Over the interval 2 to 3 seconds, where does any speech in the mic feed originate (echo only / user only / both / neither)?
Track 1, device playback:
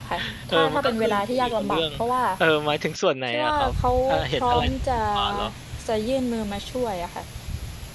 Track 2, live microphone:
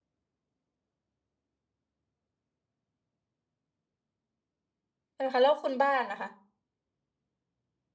neither